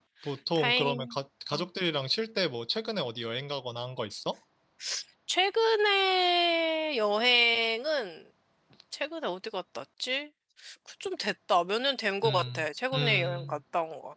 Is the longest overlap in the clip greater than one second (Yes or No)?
Yes